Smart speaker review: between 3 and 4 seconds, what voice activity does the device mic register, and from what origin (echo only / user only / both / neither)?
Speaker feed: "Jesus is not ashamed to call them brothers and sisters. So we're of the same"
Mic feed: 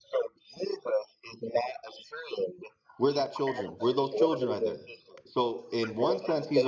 both